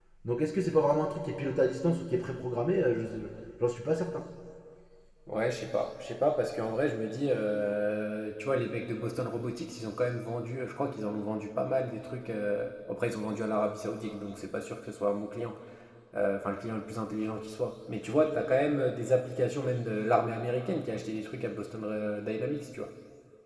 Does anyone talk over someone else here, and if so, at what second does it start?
none

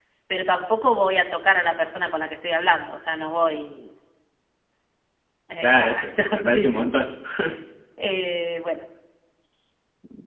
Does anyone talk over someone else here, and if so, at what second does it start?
6 s

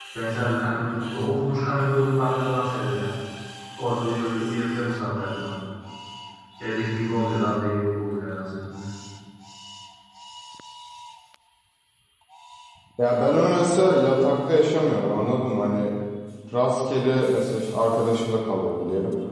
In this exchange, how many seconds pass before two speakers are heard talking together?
none

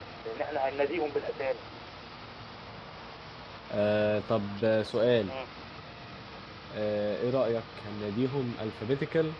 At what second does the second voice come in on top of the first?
none

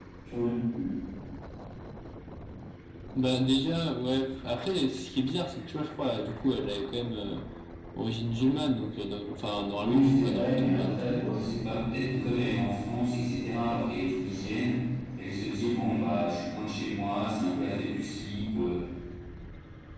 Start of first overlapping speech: 10 s

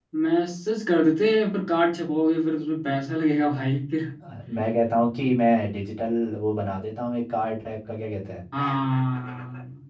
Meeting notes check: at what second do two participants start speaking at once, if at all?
none

